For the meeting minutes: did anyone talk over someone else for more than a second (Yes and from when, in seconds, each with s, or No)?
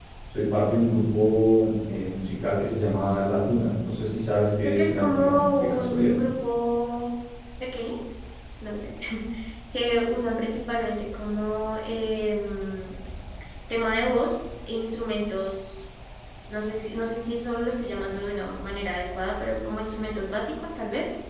Yes, from 4.6 s